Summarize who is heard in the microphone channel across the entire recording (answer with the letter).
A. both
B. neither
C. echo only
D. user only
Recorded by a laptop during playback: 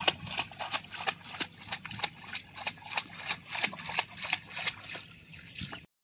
B